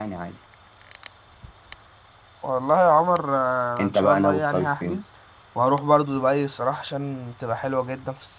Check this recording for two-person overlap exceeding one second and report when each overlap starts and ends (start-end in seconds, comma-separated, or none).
3.8-5.0